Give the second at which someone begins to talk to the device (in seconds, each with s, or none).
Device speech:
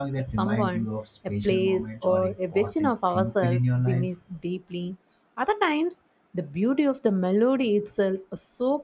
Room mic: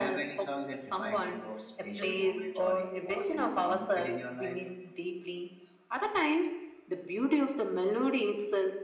none